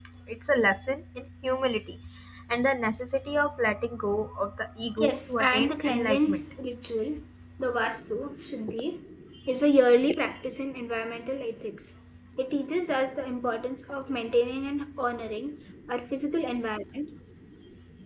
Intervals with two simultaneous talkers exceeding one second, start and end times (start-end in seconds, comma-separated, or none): 5.0-6.4